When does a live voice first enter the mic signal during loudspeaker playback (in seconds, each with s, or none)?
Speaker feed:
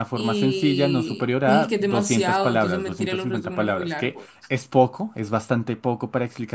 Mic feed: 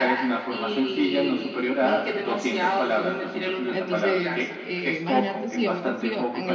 3.7 s